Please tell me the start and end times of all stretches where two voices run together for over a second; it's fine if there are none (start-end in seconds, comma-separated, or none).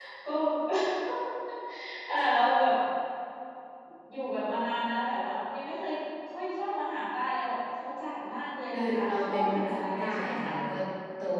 8.8-10.5